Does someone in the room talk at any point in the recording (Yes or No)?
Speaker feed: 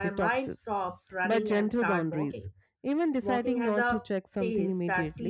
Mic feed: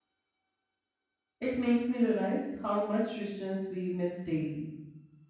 Yes